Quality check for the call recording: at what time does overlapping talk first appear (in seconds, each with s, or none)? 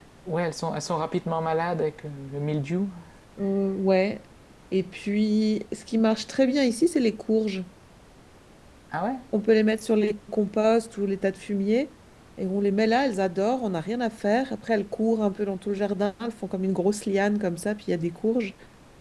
none